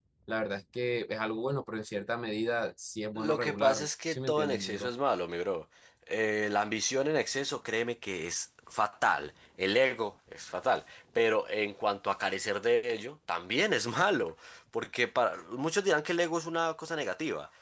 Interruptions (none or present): present